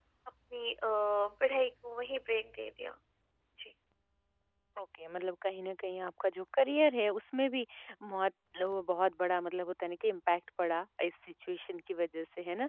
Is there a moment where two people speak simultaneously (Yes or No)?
No